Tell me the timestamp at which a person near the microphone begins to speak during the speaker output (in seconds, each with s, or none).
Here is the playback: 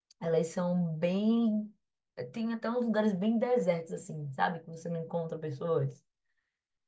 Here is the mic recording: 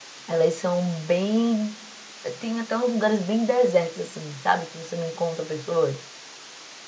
none